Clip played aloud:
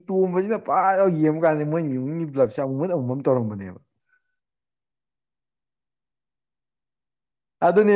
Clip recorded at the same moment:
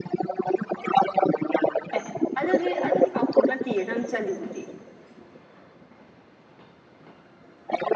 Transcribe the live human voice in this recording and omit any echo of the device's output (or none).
ꯑꯦ ꯑꯗꯨꯗꯤ ꯑꯗꯨꯗꯤ ꯄꯥꯎꯈꯨꯝ ꯅꯠꯇꯦꯌꯦ ꯅꯪ ꯆꯜꯂꯤꯗꯨꯗꯤ